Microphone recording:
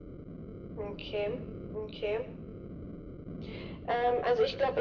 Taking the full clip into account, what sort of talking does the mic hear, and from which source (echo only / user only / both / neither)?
echo only